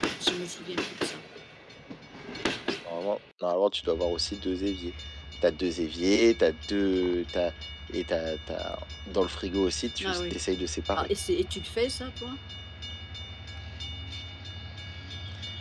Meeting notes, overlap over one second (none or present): none